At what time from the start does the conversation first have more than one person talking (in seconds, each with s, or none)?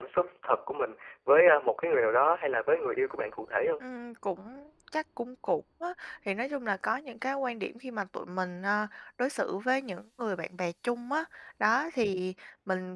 none